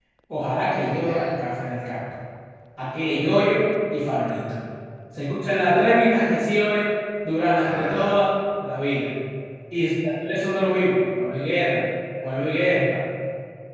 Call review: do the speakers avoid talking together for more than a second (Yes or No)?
Yes